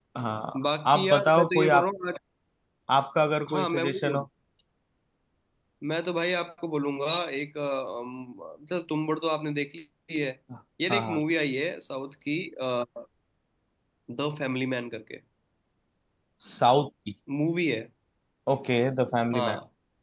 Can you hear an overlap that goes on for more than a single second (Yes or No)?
Yes